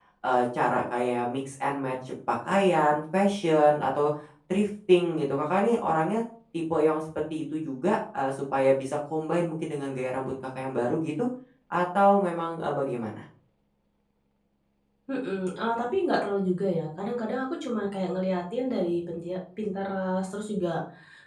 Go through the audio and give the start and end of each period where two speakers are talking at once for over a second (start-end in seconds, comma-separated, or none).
none